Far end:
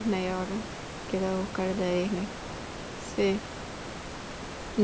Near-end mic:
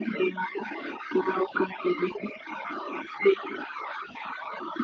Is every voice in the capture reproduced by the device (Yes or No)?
Yes